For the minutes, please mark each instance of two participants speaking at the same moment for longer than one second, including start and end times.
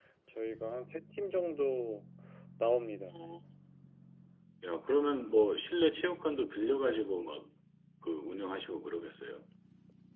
none

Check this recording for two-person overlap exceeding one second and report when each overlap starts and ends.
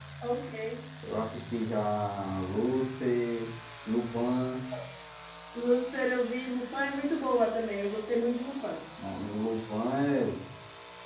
none

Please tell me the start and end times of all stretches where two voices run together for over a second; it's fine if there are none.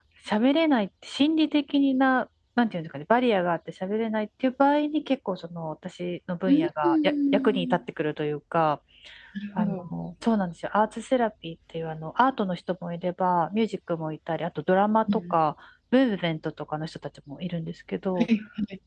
6.5-7.8

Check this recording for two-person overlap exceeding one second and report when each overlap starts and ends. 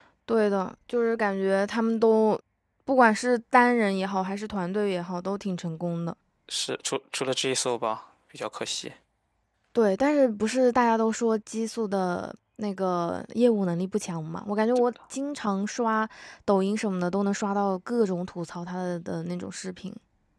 none

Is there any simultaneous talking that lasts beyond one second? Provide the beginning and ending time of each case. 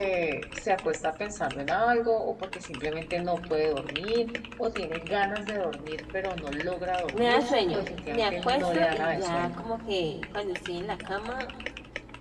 7.1-9.5

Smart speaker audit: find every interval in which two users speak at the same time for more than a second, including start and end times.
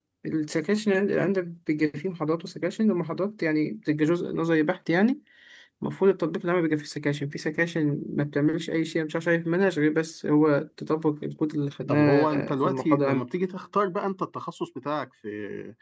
11.9-13.2

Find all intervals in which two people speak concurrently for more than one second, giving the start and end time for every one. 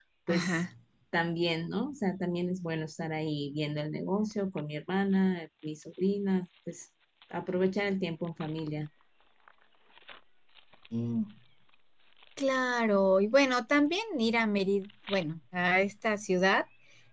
none

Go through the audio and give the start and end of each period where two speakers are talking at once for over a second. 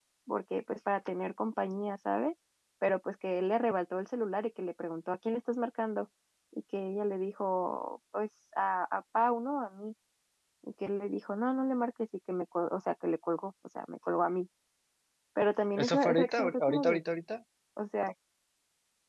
15.8-17.0

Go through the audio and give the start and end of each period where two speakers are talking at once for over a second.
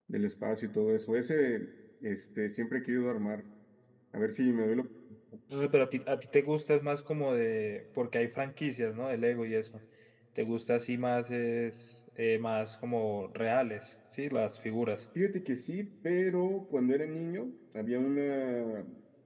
none

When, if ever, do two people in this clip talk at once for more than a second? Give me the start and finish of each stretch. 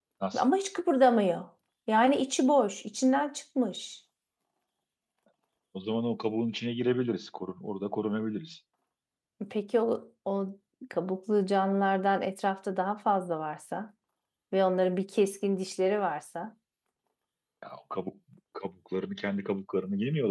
none

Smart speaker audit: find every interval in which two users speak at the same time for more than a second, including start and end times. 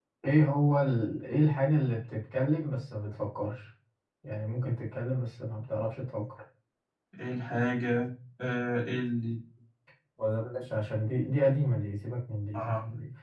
none

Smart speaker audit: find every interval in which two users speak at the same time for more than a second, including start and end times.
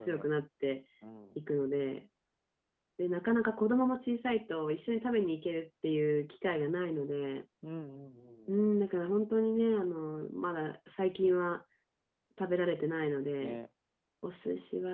none

